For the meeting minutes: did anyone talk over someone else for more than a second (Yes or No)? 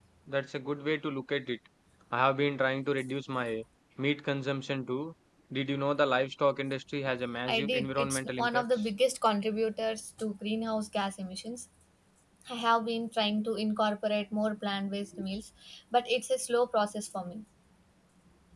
Yes